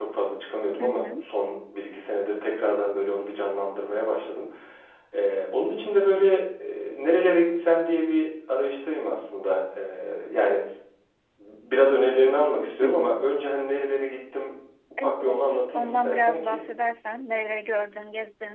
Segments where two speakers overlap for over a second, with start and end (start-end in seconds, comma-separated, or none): 15.0-16.6